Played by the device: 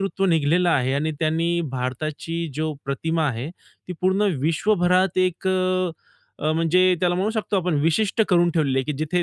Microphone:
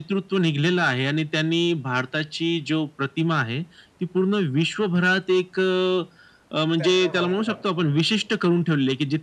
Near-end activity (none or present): present